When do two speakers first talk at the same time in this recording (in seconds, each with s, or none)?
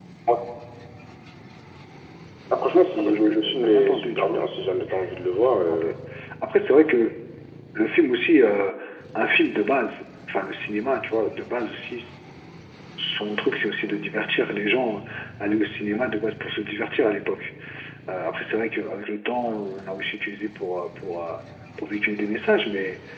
3.0 s